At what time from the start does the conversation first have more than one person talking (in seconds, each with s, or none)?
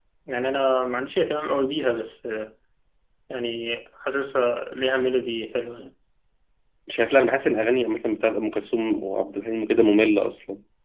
none